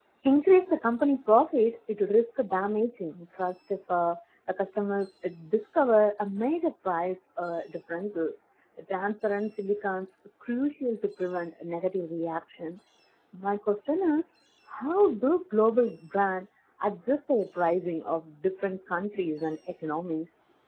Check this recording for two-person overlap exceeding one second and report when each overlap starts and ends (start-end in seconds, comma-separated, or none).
none